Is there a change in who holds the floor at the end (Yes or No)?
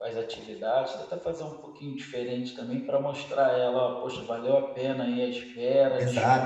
Yes